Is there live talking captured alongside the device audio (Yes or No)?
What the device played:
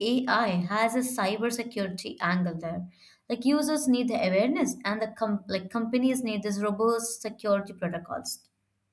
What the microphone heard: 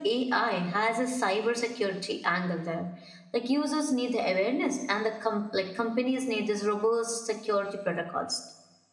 No